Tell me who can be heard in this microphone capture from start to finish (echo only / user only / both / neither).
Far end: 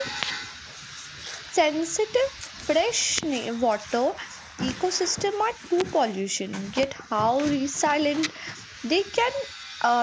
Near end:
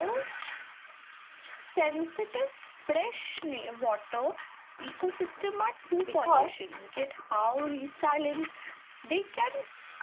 both